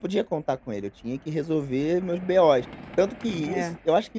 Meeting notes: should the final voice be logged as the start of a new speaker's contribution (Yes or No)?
No